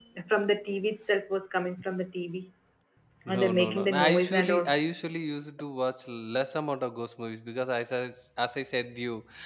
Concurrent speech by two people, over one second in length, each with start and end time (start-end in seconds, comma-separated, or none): 3.3-4.7